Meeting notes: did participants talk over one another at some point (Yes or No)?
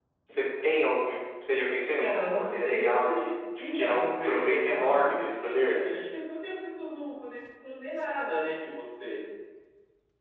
Yes